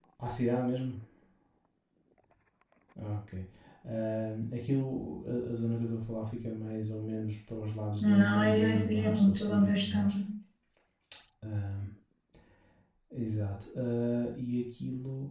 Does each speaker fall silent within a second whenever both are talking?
No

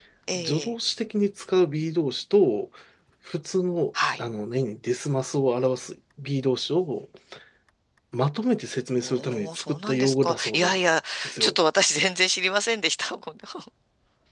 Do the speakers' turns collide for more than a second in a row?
Yes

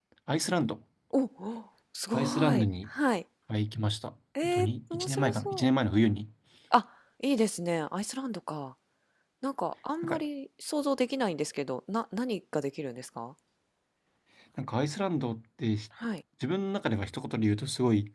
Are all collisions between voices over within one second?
No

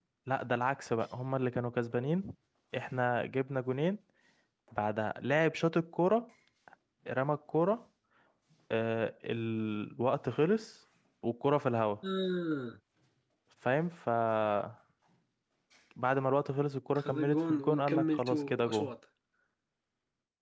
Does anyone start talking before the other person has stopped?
Yes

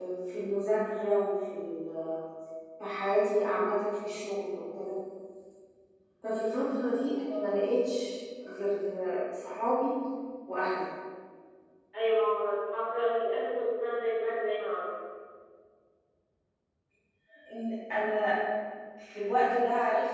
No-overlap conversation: Yes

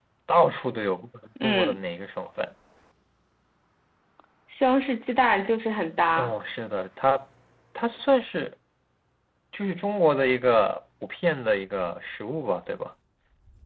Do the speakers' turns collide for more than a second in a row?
No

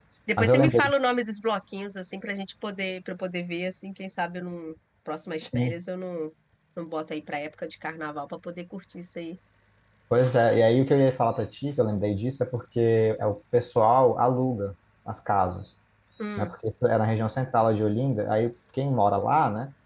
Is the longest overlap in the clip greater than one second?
No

